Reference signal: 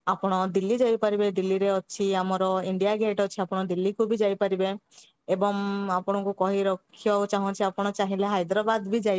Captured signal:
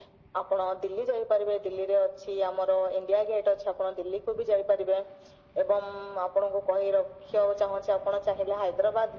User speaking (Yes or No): No